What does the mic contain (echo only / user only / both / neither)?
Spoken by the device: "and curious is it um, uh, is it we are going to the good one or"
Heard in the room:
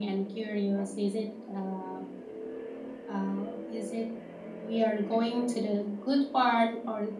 echo only